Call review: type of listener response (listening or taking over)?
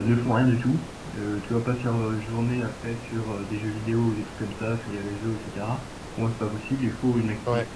listening